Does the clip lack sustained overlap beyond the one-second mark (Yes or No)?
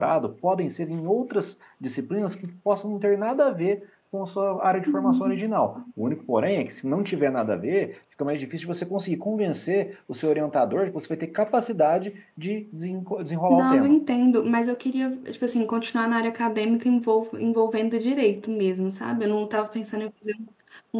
Yes